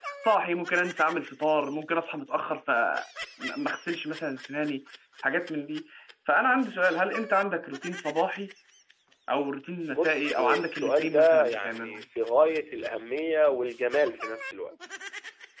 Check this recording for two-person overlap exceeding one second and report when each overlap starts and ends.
9.9-12.0

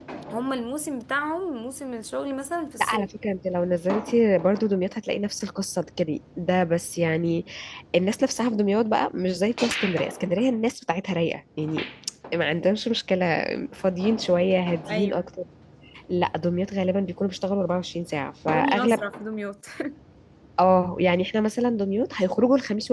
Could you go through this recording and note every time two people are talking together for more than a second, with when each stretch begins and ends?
none

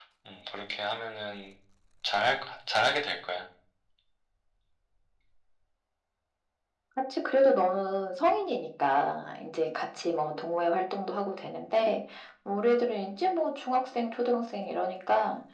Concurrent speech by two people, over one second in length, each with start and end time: none

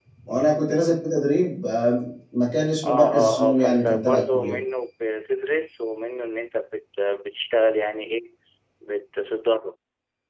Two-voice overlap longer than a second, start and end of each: 2.8-4.6

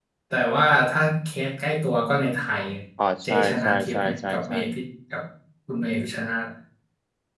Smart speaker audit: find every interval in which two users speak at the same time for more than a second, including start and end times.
3.2-4.6

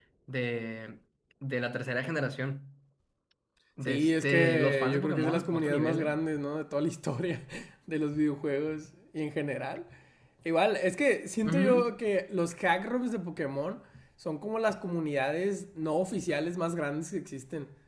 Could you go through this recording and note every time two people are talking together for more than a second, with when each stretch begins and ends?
3.8-6.2

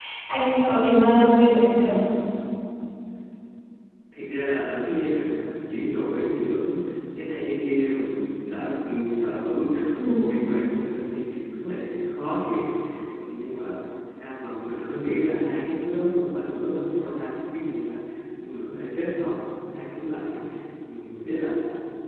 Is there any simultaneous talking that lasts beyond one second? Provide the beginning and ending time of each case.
none

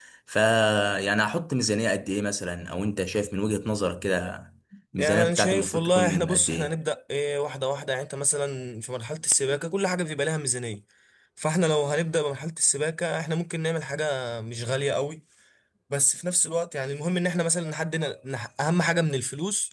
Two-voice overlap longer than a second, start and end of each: 5.0-6.7

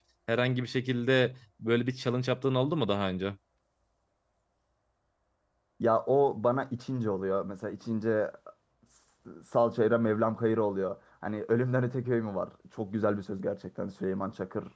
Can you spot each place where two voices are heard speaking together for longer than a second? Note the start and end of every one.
none

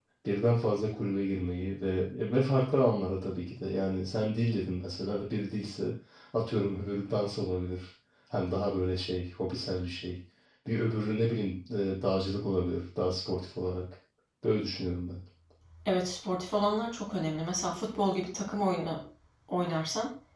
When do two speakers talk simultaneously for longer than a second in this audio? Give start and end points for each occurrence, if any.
none

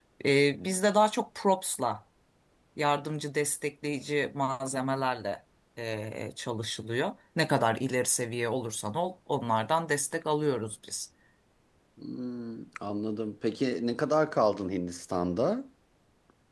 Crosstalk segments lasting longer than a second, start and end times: none

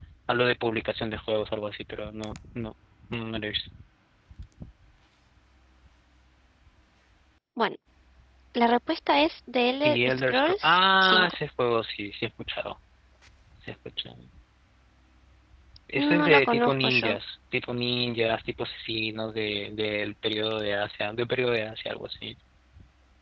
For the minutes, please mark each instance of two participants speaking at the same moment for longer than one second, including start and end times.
9.8-11.3, 16.0-17.2

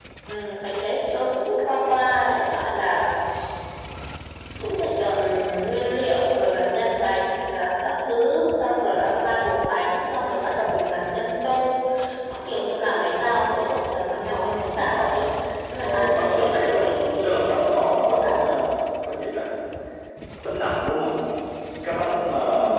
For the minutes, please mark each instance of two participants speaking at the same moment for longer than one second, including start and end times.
15.8-18.3

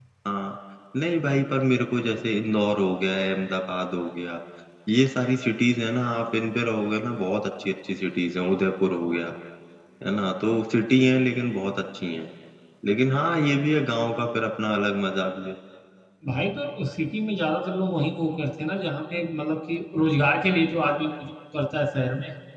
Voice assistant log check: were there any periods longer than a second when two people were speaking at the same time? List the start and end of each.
none

